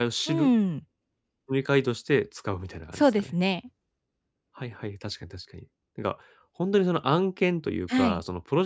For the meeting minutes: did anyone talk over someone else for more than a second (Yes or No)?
No